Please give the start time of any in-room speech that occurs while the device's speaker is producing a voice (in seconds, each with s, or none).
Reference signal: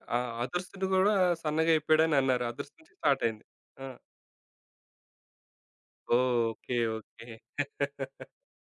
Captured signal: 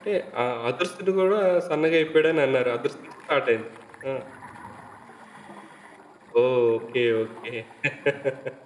none